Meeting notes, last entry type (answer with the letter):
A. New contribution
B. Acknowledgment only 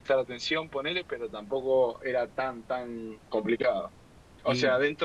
B